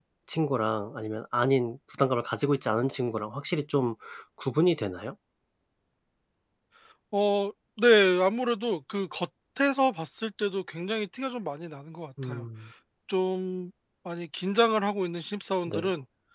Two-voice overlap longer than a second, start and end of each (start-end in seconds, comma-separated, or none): none